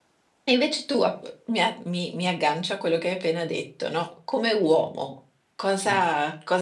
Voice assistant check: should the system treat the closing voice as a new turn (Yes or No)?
No